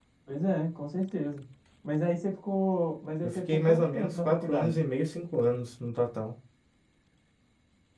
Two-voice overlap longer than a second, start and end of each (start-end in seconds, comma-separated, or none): 3.2-4.8